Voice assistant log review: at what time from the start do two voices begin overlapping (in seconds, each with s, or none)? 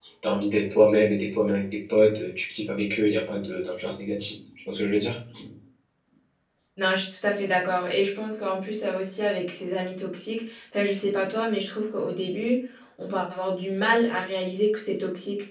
none